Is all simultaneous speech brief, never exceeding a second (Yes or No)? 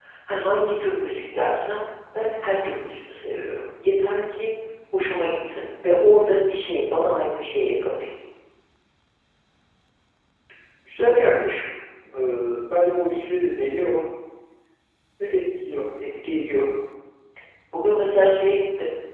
Yes